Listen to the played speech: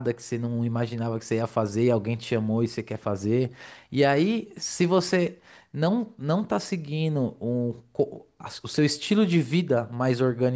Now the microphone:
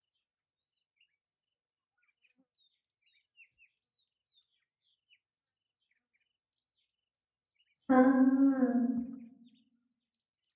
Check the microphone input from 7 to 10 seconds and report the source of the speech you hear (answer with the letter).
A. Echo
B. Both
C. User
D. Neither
C